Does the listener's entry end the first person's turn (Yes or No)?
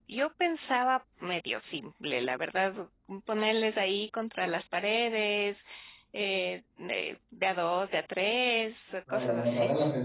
Yes